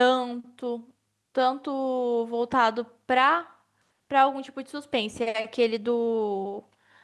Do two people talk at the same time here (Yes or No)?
No